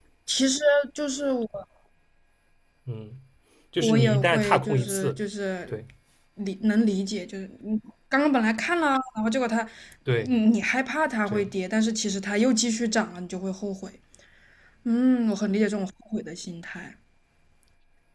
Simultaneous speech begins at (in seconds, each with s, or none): 3.8 s